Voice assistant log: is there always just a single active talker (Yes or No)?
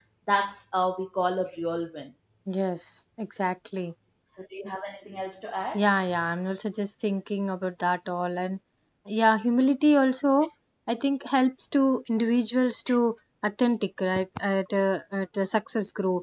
Yes